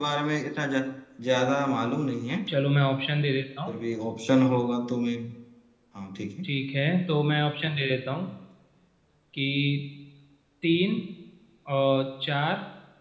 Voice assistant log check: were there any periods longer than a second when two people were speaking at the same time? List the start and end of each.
none

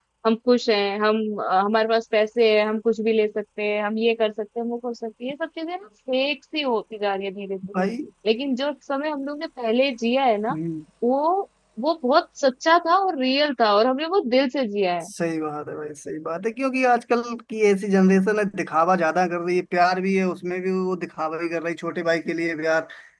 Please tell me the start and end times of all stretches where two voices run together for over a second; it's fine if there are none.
none

